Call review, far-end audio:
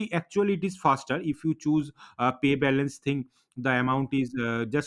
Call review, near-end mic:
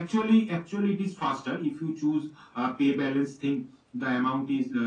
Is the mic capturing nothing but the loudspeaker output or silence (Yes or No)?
Yes